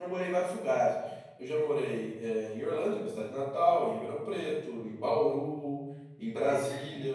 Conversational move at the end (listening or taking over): listening